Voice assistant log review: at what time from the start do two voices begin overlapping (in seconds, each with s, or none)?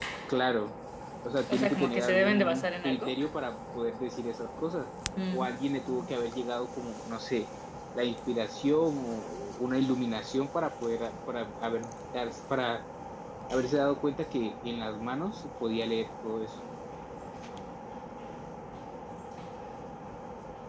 1.5 s